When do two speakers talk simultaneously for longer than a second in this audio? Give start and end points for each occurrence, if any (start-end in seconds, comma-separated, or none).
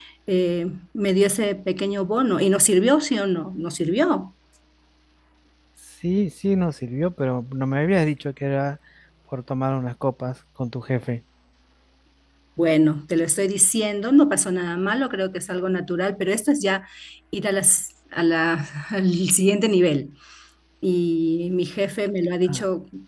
none